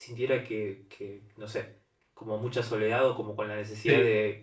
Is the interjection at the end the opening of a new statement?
No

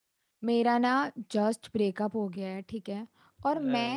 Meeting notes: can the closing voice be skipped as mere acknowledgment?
Yes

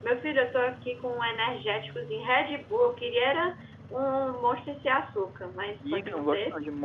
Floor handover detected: Yes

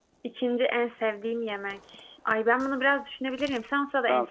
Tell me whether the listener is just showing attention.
No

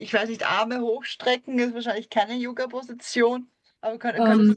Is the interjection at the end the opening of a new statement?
No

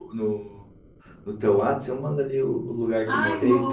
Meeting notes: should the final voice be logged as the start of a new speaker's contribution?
Yes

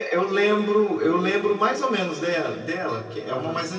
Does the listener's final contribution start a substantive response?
Yes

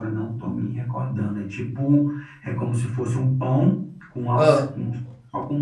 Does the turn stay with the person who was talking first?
Yes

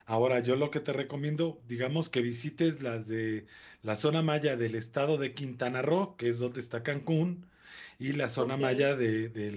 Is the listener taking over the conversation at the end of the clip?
No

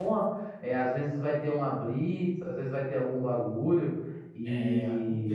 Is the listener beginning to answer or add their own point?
Yes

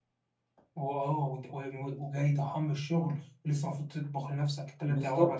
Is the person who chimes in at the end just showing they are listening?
No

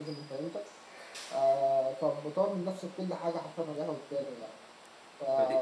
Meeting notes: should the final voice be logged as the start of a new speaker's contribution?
Yes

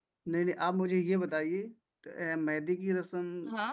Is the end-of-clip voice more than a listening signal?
No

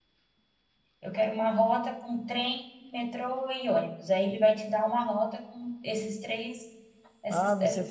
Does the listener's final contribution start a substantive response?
Yes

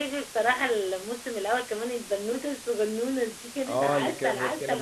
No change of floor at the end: No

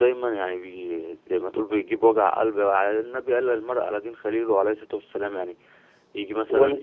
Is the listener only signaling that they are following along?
Yes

